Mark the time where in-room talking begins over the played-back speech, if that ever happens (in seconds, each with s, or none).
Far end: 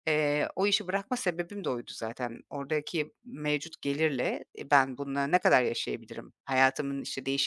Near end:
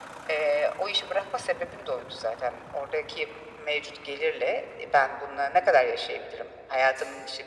none